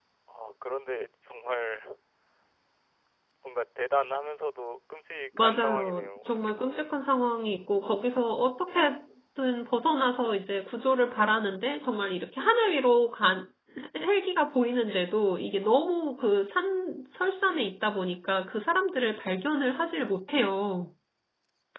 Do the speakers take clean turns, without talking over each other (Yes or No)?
No